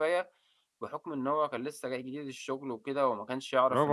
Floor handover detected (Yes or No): Yes